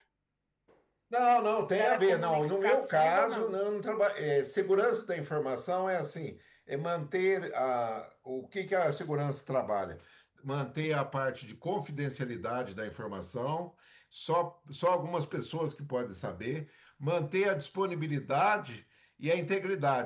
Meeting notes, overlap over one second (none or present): present